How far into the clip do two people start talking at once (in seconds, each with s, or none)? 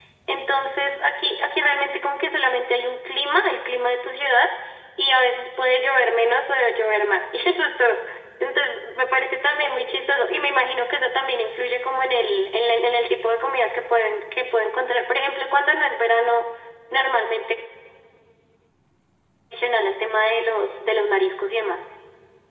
none